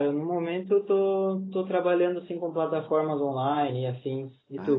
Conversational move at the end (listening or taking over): taking over